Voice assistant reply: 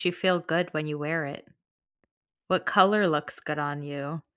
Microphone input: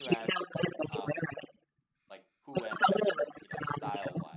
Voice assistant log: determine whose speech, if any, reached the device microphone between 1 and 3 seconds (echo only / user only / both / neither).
both